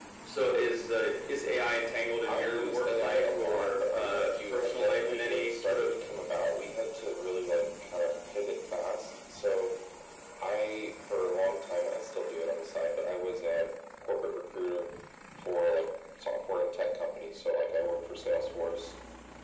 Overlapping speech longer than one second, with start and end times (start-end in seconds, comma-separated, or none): 2.2-5.9